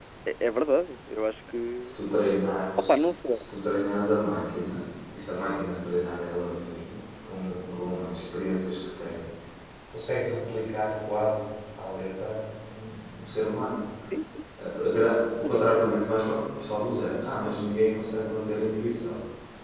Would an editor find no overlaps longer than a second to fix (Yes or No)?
Yes